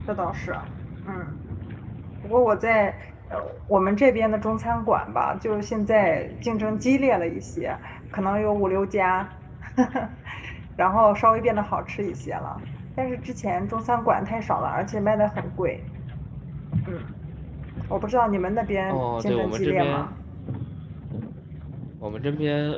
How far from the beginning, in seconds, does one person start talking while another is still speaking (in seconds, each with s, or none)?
18.9 s